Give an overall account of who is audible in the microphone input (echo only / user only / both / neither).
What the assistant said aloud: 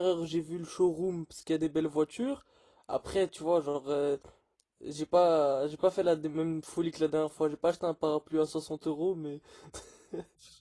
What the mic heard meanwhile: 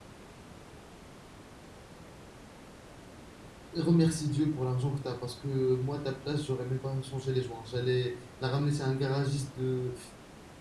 user only